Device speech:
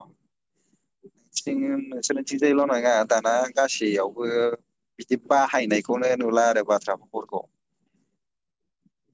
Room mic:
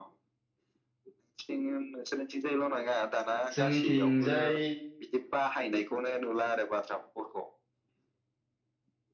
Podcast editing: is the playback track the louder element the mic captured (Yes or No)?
No